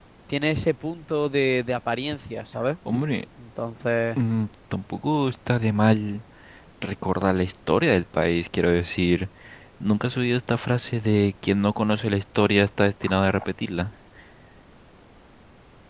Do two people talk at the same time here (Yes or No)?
No